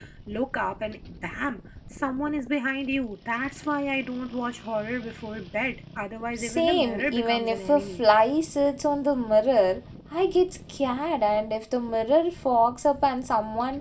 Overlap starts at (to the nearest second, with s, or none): 6 s